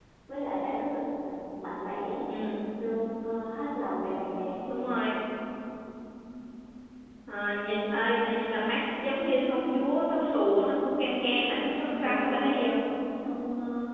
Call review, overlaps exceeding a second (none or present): none